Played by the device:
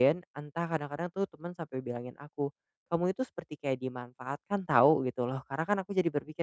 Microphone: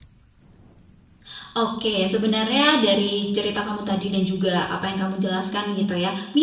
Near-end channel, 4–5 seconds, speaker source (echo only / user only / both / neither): user only